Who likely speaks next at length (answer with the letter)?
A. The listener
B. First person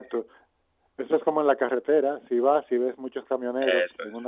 B